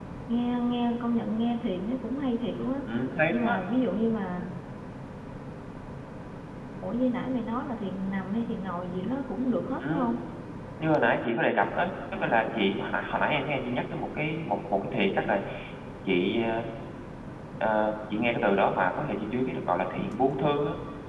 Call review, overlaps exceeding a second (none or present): none